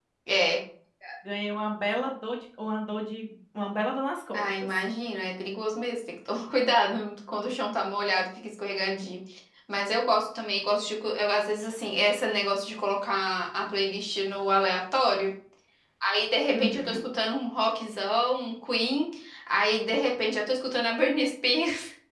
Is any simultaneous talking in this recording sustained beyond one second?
No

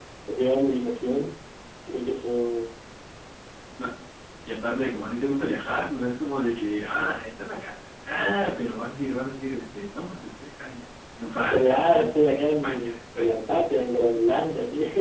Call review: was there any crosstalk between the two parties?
Yes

